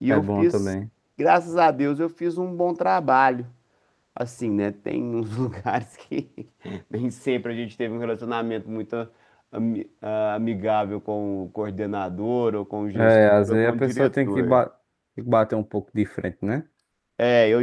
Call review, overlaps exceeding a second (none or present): present